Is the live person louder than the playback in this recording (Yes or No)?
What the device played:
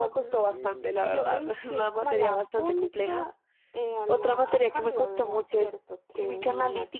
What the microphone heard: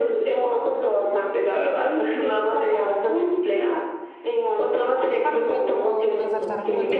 No